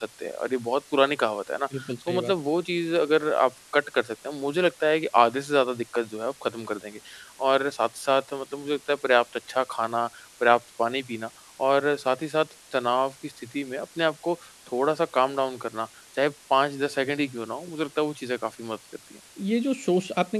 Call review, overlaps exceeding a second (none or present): none